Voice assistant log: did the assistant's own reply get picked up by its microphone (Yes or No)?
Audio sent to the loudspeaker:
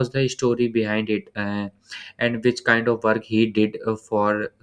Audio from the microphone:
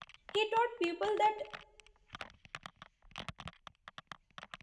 No